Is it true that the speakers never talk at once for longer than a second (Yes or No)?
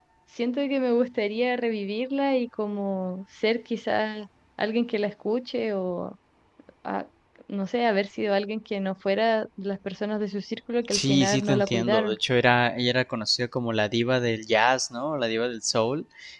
No